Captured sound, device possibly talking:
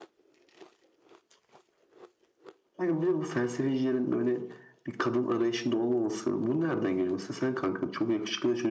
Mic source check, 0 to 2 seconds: neither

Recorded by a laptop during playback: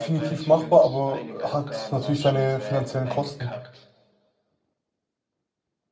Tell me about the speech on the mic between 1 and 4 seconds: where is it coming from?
both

